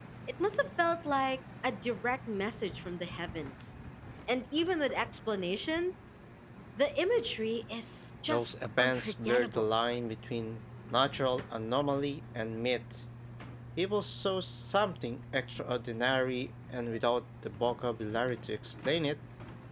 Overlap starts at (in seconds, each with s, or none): 8.3 s